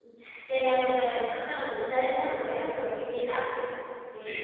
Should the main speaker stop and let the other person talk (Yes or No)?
Yes